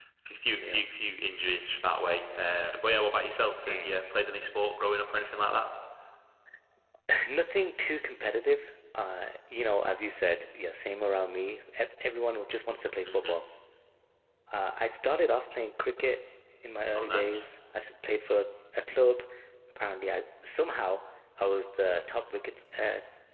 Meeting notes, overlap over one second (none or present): none